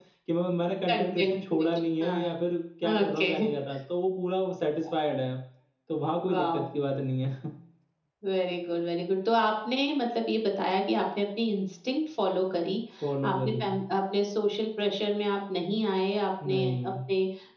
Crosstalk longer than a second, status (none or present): present